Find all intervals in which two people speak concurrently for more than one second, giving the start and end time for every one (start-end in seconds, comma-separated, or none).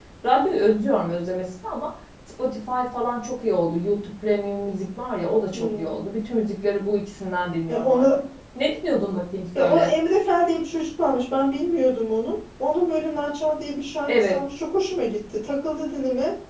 none